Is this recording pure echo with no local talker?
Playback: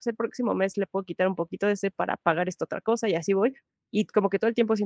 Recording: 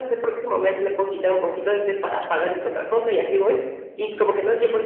Yes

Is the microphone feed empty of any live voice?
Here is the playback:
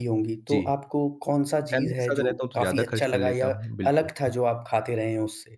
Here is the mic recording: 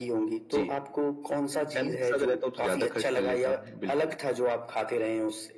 Yes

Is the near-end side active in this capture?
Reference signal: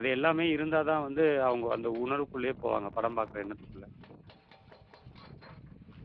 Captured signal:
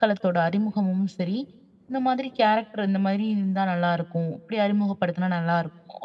Yes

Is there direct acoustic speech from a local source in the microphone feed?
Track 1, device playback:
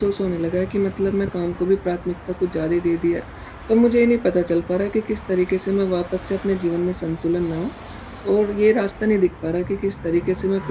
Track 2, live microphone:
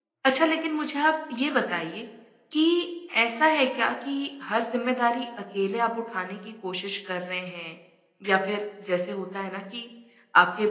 Yes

